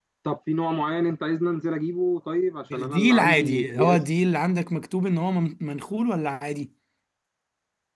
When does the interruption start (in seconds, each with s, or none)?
2.7 s